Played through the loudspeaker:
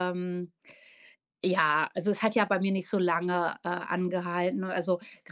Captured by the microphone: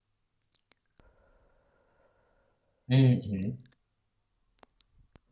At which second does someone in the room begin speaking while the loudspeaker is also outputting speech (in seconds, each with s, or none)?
2.9 s